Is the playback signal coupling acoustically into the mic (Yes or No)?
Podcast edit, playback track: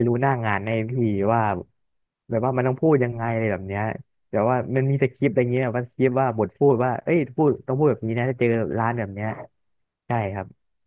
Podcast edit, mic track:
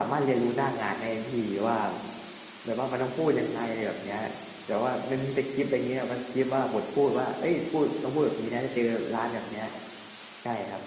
Yes